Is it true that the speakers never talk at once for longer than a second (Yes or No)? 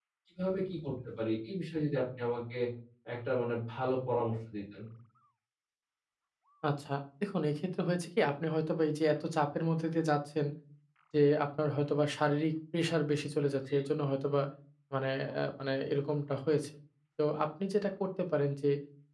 Yes